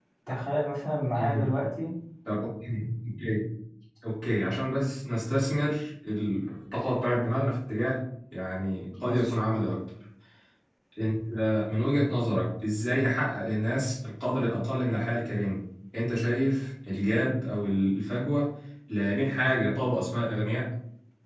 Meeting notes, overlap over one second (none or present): none